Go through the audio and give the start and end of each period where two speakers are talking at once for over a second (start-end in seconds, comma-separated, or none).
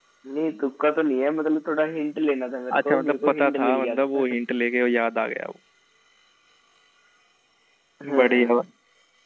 2.8-4.2